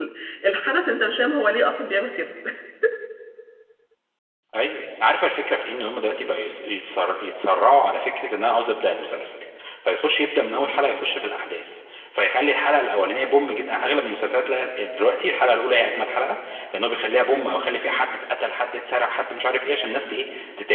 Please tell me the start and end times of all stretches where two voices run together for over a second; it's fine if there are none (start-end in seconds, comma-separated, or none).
none